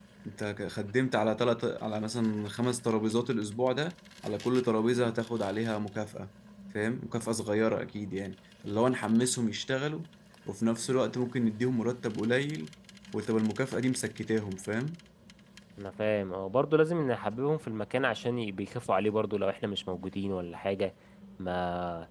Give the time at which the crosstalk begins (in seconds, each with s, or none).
none